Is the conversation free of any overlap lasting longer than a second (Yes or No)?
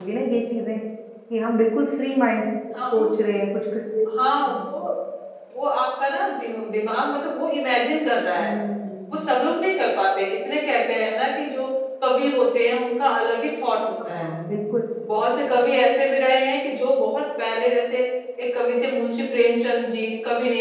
Yes